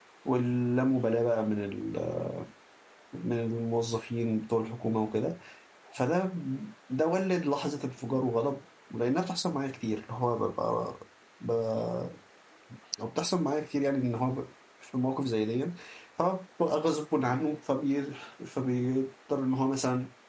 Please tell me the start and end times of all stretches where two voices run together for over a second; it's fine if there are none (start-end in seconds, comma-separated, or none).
none